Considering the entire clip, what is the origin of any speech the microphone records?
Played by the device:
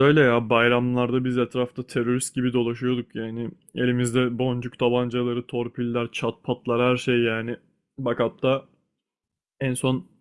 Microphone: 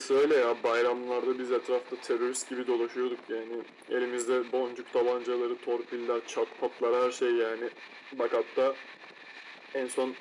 echo only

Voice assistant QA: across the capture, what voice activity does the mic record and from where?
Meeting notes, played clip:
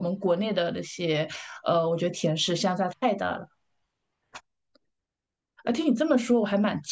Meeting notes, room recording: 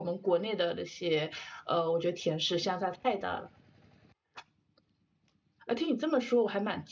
echo only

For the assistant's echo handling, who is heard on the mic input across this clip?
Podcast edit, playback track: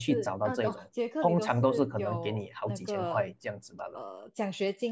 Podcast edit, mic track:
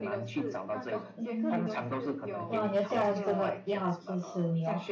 both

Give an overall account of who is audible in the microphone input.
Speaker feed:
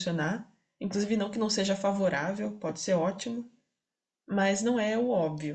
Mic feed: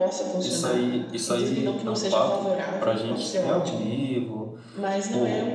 both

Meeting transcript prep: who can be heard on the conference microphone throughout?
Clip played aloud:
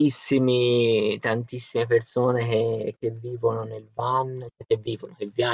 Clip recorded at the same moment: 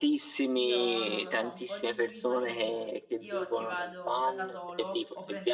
both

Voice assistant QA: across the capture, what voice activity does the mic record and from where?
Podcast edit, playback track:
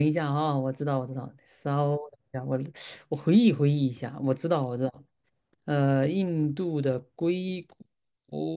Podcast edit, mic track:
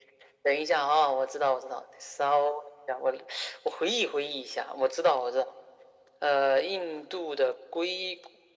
echo only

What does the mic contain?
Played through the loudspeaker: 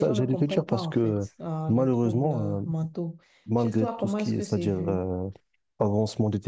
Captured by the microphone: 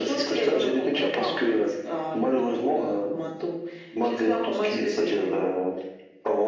echo only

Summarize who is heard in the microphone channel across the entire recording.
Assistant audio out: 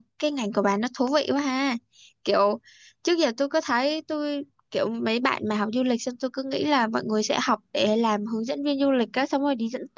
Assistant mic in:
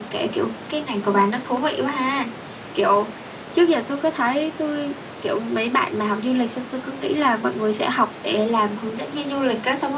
echo only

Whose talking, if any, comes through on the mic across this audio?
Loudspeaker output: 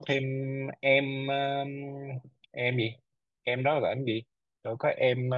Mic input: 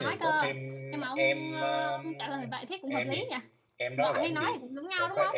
both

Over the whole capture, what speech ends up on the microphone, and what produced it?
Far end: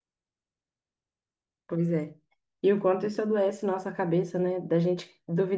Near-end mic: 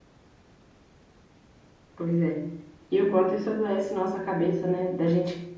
echo only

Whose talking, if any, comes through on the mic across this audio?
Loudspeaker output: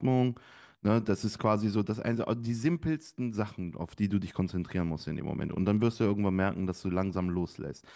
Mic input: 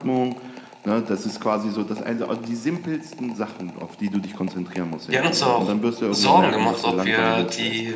both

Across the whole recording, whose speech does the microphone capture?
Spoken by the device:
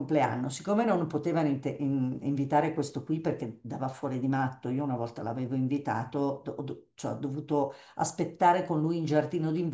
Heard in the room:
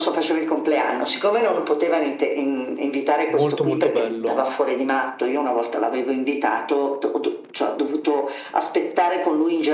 both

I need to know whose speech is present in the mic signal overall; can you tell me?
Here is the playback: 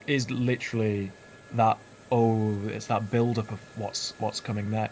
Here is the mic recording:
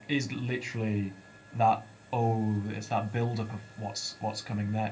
echo only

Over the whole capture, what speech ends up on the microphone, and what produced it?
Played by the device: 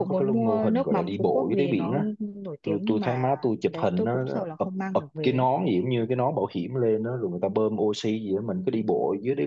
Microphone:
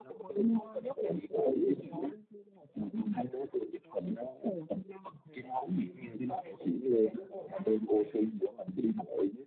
both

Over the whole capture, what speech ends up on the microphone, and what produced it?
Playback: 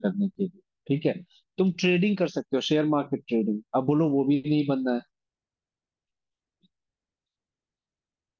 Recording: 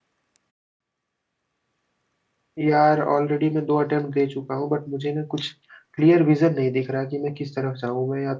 user only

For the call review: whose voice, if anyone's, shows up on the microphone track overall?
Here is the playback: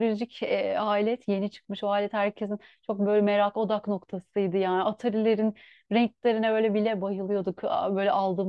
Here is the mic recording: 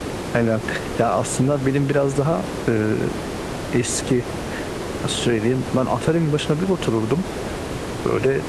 user only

